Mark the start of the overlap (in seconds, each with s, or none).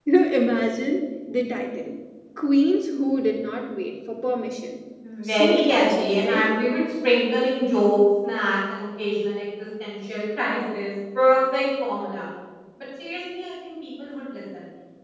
5.2 s